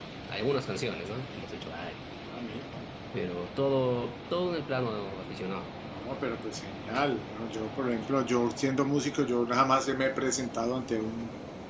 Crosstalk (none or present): none